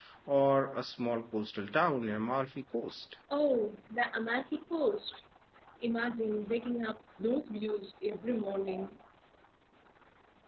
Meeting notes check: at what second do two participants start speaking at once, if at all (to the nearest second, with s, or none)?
none